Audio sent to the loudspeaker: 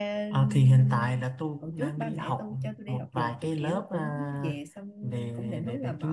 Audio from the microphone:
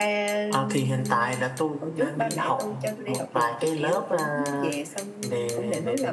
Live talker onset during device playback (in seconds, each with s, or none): none